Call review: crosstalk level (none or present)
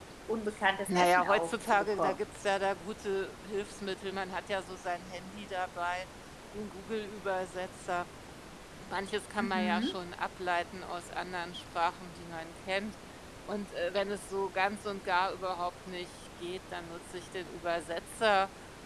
present